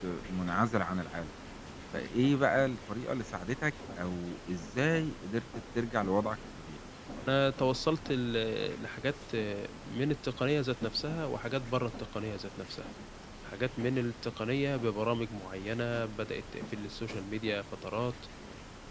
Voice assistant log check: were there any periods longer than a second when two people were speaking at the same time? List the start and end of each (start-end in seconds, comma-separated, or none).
none